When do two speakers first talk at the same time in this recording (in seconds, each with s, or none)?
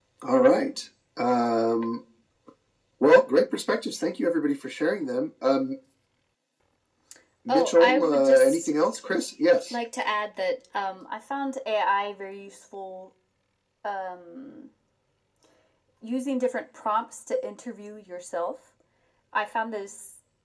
7.5 s